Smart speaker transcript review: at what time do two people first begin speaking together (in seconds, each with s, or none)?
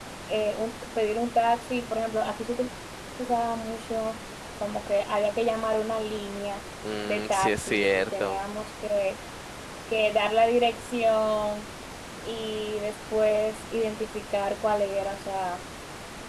6.8 s